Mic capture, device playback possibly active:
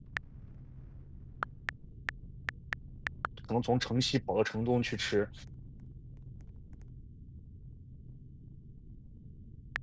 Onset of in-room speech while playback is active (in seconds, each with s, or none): 3.5 s